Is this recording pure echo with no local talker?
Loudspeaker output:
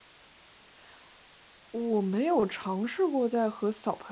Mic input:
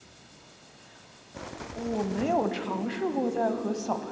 Yes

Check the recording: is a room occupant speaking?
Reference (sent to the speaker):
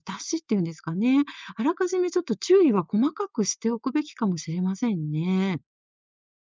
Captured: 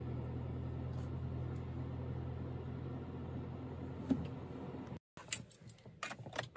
No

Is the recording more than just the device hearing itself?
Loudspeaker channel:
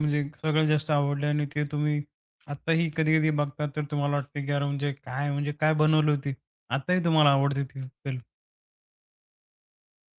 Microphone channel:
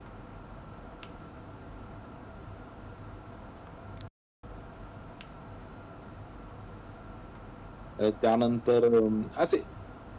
Yes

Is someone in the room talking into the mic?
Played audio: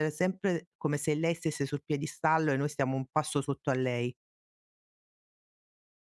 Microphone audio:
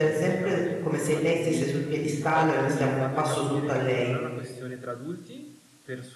Yes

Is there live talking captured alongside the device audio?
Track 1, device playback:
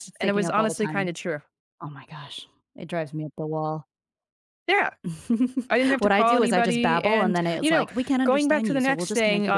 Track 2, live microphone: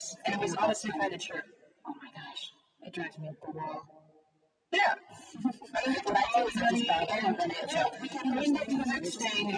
Yes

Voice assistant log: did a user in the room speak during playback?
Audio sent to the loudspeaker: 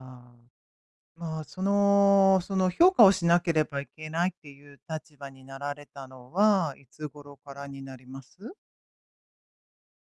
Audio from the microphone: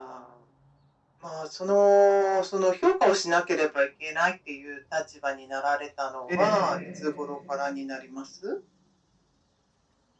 Yes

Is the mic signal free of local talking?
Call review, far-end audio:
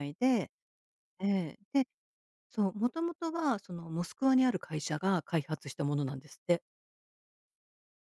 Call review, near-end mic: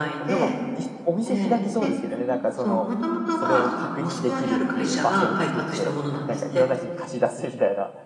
No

